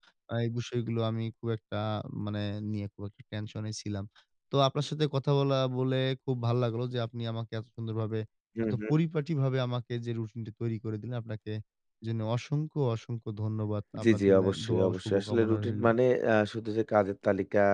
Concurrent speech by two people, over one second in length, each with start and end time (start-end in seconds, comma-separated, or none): 14.0-15.9